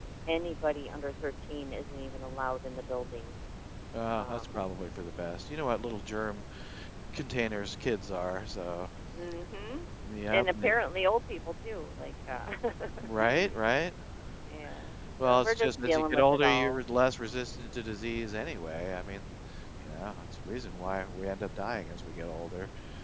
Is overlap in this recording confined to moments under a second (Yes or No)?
No